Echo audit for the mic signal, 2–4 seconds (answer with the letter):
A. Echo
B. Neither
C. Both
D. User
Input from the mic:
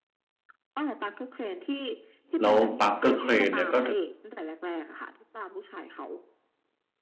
C